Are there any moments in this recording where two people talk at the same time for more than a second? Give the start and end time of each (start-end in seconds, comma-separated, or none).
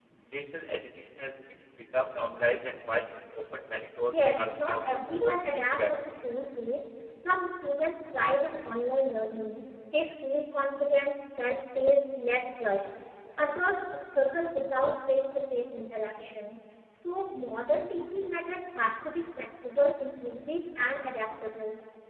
4.1-5.9